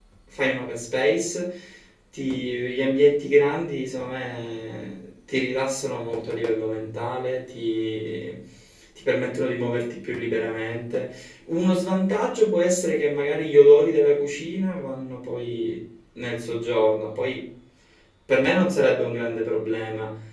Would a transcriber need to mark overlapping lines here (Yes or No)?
No